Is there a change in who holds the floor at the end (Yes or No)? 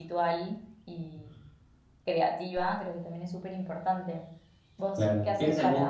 Yes